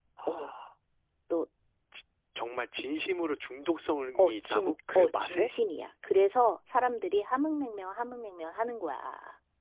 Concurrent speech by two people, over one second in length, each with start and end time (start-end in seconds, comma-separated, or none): 4.2-5.5